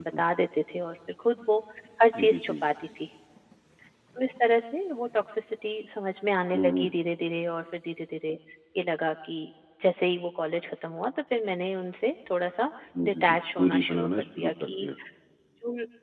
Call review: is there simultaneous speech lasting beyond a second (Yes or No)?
Yes